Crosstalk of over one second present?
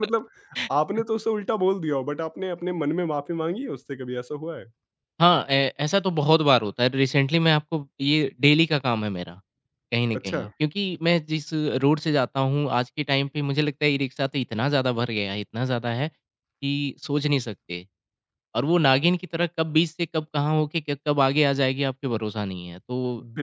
No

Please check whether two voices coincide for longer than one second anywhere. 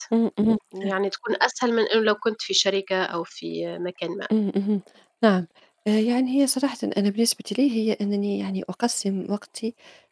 No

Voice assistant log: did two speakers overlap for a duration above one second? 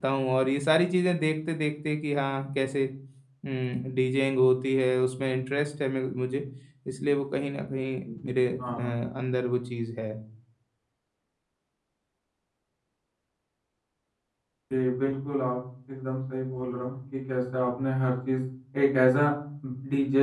No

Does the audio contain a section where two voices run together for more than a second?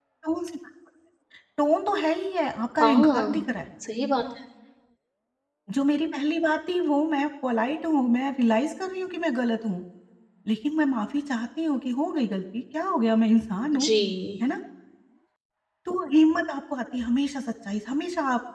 No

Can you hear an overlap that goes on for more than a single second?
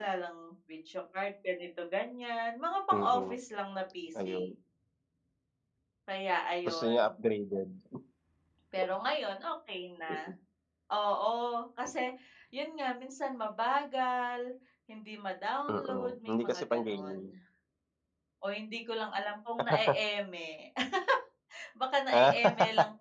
Yes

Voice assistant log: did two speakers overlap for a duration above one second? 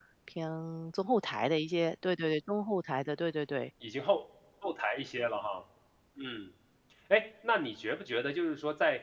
No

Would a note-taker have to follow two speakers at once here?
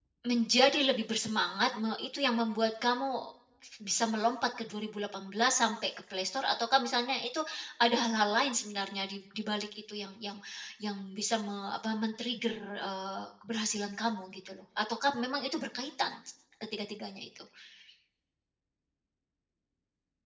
No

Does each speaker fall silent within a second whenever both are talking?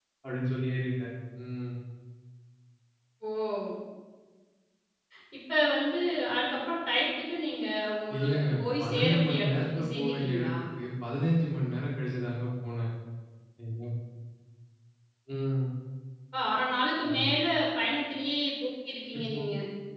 No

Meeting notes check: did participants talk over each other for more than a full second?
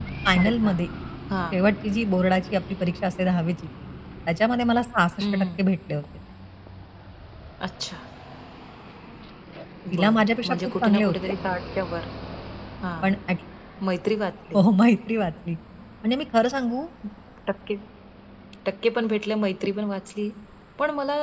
Yes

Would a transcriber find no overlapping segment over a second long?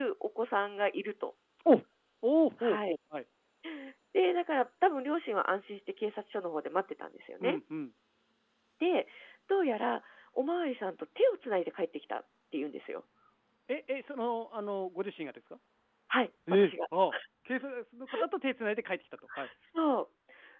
Yes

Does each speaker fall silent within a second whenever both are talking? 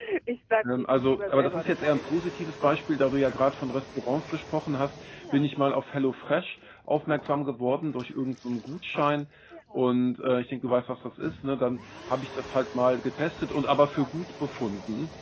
No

